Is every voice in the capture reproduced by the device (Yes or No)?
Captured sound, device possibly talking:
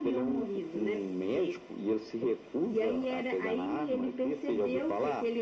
Yes